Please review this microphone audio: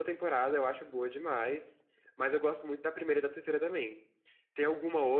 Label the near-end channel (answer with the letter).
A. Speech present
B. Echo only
B